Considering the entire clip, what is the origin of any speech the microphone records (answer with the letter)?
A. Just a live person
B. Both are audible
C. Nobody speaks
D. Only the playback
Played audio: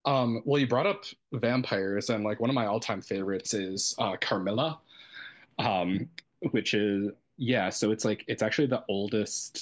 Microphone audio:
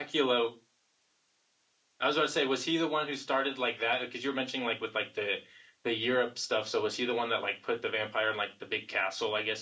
A